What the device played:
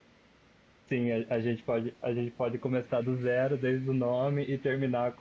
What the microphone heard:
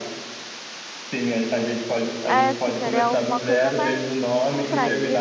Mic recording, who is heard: both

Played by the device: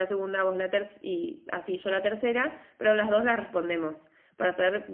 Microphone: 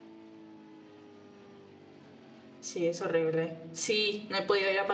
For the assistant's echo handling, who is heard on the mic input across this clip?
user only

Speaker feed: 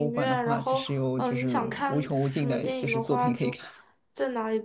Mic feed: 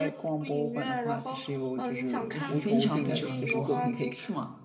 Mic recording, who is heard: both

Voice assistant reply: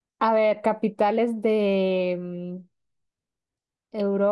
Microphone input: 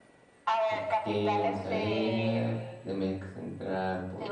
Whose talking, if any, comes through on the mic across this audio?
both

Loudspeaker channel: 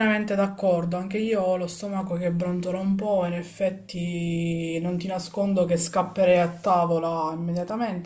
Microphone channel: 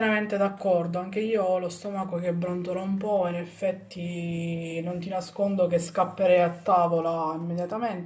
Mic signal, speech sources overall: echo only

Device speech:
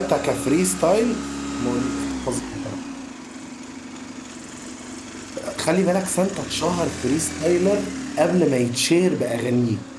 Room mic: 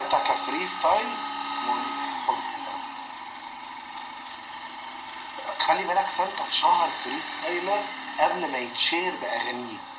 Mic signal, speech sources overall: echo only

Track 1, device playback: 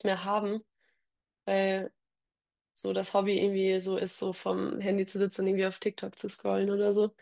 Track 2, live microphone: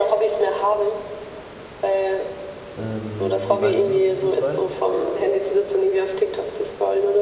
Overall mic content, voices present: both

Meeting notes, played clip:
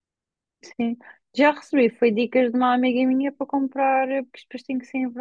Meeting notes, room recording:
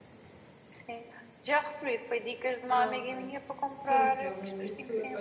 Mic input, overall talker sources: both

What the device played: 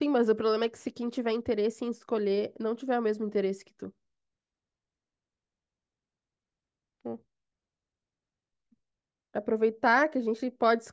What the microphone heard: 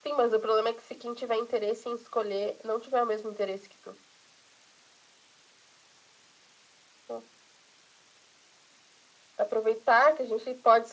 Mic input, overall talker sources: echo only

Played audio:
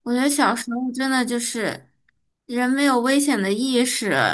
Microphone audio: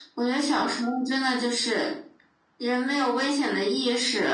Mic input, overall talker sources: echo only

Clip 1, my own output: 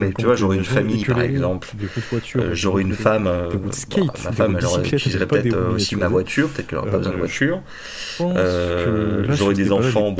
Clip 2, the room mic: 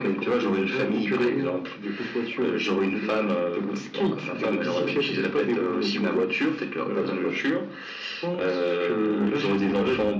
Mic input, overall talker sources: echo only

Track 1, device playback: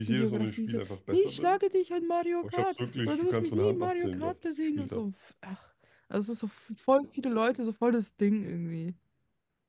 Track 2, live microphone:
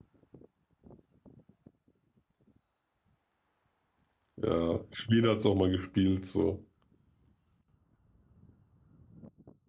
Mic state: user only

